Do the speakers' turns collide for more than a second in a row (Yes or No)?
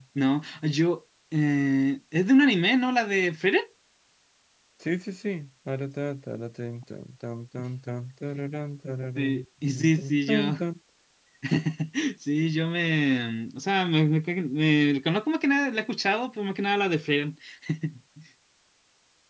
Yes